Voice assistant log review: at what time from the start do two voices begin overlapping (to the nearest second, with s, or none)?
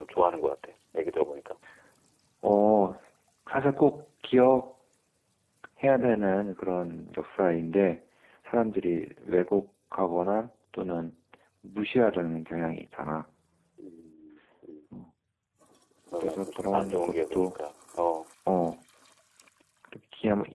16 s